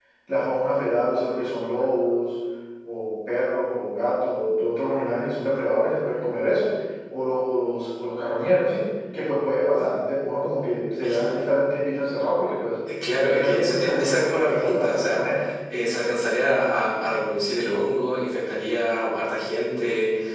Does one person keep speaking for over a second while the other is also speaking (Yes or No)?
Yes